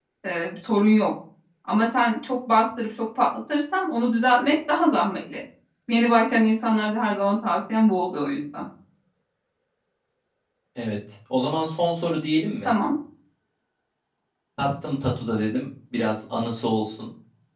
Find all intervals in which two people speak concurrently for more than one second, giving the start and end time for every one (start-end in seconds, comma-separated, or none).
none